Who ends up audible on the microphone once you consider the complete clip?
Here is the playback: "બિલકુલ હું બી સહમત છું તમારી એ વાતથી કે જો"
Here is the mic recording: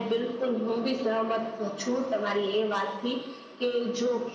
echo only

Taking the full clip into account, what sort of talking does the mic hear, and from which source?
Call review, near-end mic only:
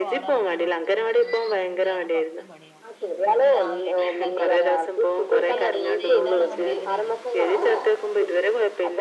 both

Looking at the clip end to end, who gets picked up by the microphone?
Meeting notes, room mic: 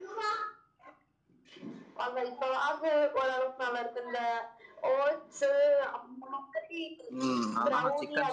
both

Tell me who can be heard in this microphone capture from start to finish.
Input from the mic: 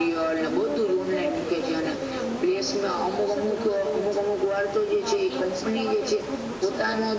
echo only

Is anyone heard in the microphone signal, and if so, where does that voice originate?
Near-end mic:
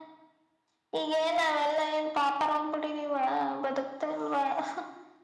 echo only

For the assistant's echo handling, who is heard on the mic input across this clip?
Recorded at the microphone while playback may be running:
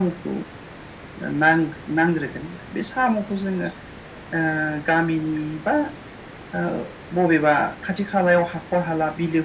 echo only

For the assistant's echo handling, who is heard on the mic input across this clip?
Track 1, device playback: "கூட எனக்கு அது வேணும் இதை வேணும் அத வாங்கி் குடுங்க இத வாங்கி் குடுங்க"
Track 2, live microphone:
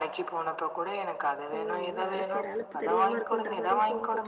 both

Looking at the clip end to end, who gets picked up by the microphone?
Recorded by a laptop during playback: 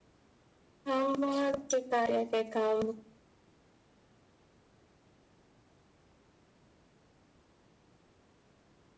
user only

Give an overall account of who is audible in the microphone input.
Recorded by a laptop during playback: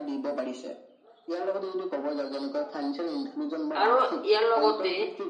both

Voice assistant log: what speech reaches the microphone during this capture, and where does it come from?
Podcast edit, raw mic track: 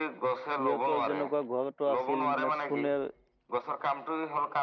both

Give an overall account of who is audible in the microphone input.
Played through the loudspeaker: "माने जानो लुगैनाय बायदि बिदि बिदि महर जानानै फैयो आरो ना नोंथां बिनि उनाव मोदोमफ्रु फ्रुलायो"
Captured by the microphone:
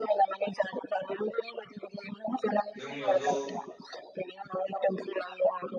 both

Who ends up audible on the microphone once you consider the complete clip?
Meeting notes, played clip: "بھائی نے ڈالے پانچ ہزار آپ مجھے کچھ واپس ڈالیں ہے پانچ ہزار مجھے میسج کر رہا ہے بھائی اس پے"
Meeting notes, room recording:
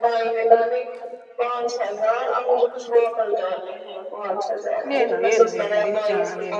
both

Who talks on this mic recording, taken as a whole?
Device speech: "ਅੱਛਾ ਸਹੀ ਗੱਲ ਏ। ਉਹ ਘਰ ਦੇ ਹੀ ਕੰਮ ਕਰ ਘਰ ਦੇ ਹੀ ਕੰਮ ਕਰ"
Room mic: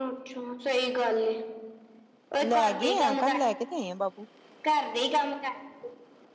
both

